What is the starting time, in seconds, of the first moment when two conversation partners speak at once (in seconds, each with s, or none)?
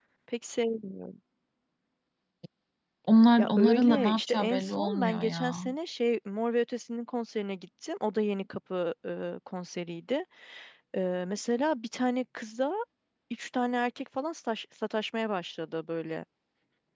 3.4 s